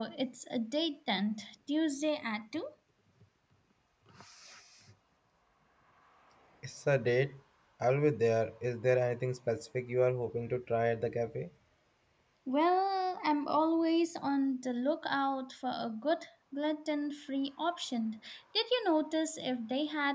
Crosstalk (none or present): none